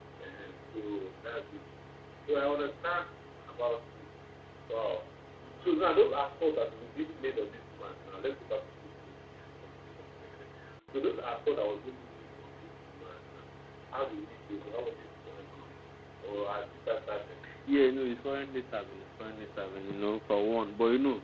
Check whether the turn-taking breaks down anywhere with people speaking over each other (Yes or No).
No